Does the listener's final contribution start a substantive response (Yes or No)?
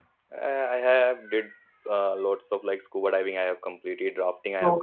No